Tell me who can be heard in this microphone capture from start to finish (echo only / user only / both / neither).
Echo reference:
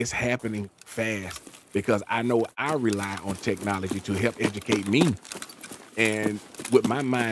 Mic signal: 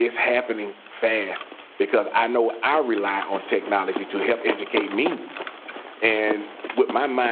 echo only